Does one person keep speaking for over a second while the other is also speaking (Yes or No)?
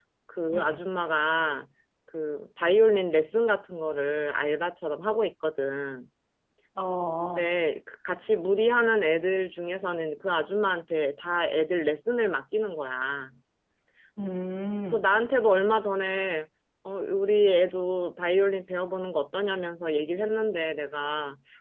No